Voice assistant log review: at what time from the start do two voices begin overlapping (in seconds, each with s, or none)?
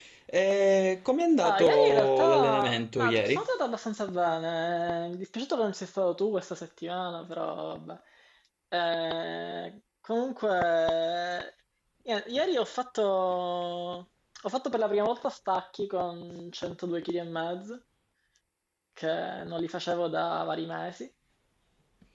1.4 s